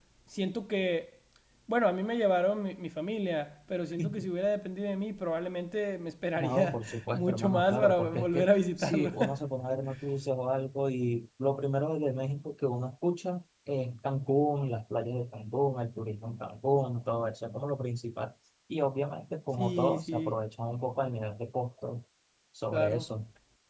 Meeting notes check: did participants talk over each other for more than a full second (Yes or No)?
Yes